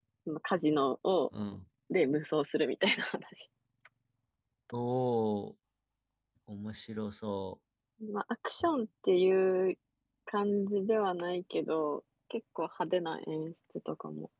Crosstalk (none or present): none